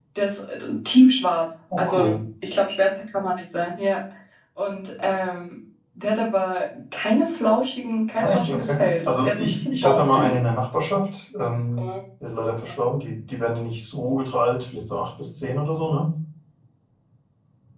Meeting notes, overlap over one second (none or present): present